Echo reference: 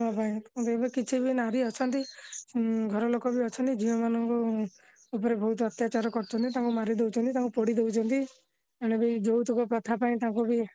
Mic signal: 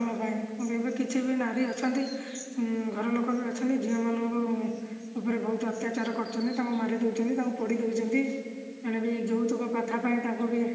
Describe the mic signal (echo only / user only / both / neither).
echo only